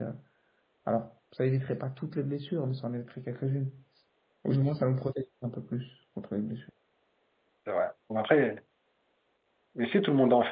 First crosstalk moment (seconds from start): none

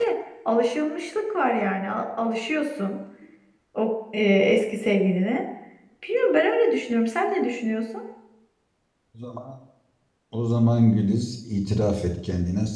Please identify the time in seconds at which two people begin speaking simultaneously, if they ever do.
none

